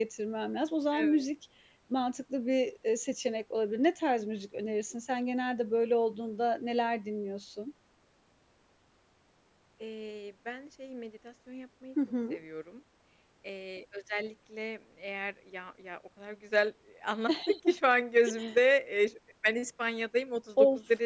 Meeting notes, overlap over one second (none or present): none